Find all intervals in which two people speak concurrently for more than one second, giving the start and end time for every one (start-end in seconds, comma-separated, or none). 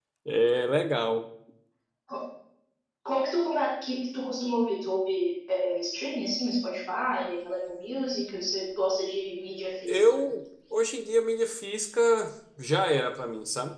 none